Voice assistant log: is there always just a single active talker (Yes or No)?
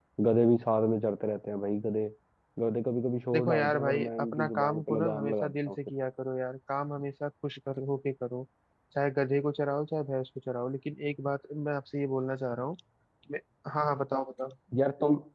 No